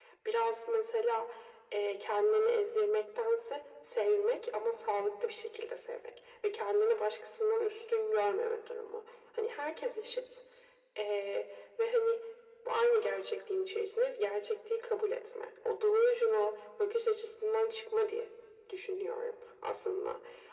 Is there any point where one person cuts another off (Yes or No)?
No